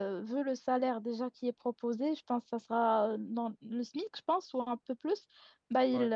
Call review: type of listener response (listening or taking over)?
listening